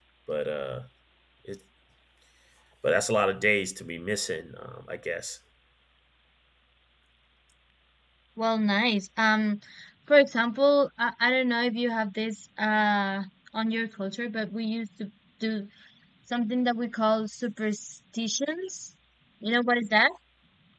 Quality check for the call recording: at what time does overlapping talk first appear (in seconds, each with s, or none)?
none